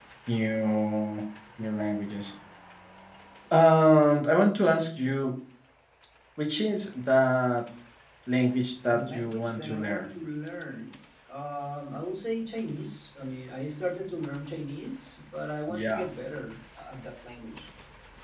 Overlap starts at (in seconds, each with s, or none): 8.9 s